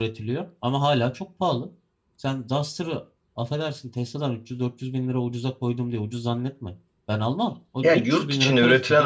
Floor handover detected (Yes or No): Yes